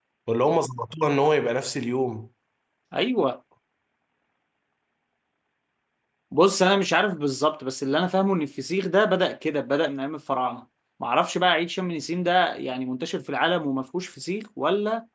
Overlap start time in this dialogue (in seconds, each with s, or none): none